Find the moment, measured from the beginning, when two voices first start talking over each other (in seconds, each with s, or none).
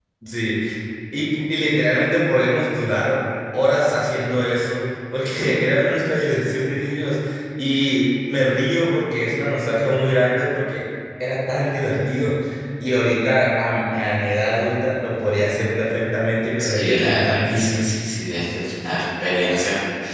16.6 s